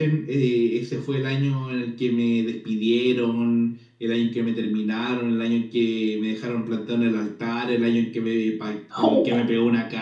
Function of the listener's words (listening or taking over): listening